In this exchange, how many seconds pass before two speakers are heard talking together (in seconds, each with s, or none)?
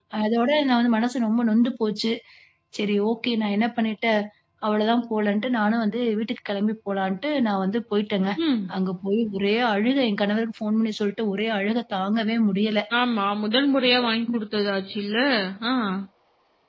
none